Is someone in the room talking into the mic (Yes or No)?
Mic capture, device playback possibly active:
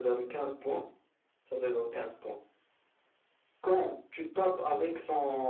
No